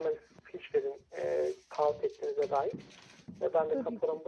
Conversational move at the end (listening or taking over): listening